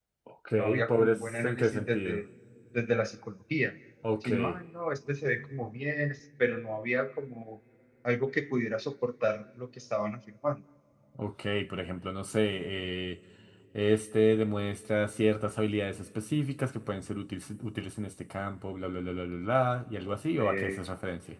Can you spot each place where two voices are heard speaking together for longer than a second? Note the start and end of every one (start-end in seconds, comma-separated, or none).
0.5-2.2